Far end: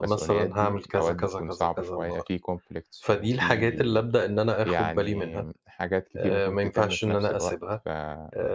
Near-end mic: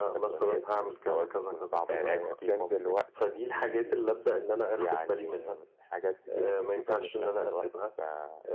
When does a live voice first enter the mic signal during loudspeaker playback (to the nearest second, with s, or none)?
2 s